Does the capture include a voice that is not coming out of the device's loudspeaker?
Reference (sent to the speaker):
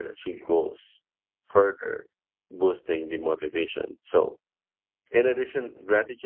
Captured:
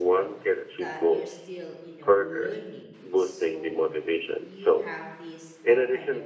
Yes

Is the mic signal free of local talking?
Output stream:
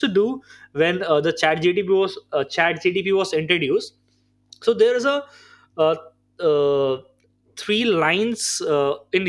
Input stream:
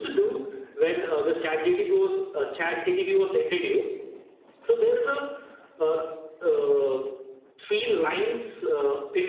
Yes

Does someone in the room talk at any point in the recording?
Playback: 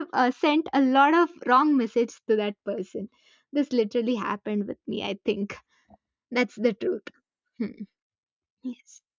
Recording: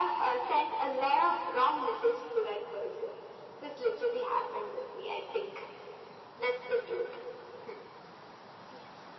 No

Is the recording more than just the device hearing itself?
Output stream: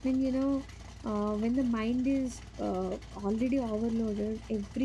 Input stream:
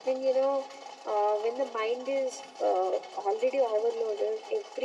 No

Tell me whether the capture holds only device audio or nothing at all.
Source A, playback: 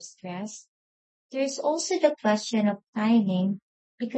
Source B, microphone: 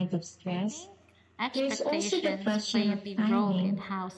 No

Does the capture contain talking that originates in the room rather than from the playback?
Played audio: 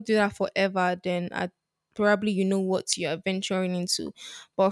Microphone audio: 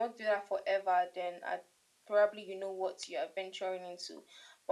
No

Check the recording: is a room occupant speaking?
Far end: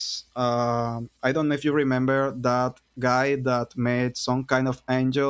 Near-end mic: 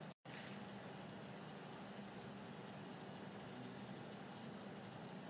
No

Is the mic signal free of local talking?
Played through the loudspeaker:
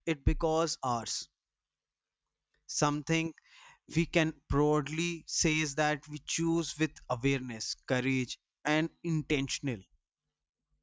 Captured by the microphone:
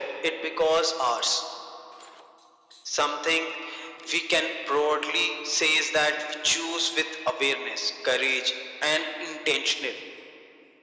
Yes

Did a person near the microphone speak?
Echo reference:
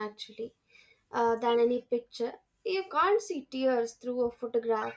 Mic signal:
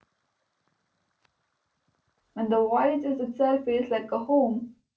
Yes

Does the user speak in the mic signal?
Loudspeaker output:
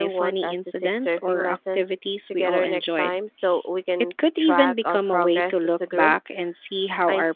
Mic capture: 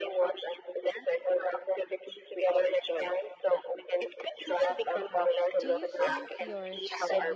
Yes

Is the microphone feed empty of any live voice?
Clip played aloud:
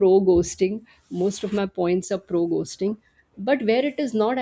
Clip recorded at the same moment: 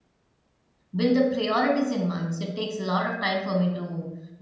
No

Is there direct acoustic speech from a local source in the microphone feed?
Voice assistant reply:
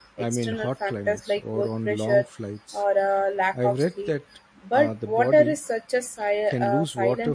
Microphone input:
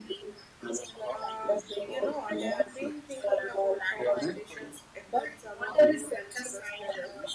Yes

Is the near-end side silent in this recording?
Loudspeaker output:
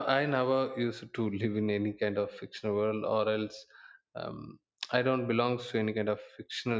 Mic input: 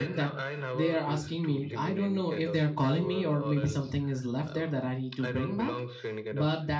No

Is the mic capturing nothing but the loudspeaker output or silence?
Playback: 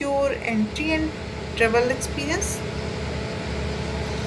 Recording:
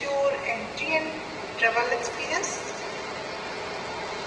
Yes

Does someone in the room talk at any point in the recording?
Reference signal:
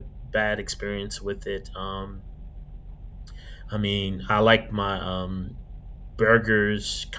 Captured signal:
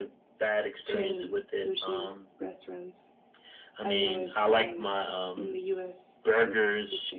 Yes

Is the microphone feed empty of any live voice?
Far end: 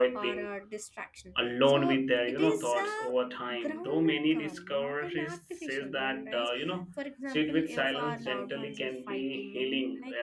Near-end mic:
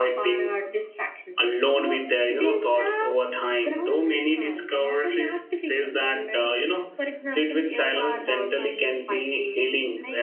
Yes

